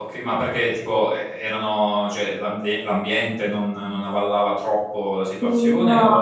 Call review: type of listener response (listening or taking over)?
taking over